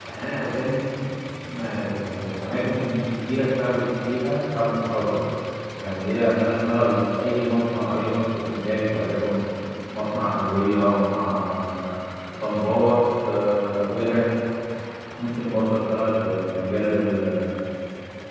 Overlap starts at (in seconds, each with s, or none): none